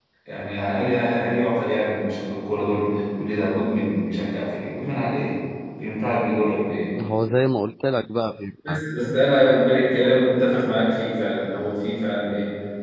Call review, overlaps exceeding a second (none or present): none